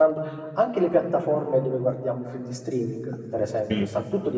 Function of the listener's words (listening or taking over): listening